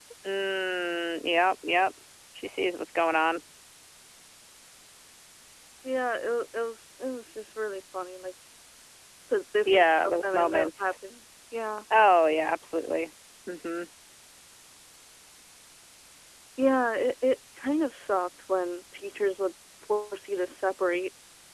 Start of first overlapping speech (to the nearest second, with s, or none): 10 s